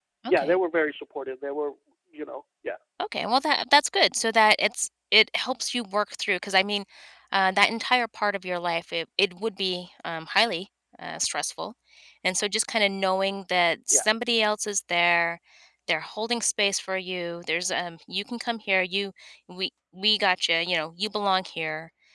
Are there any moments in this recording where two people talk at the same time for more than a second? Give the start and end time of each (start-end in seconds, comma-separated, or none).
none